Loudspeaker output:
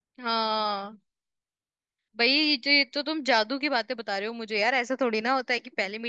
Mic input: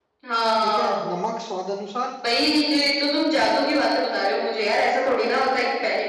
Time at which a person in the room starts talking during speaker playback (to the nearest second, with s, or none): 1 s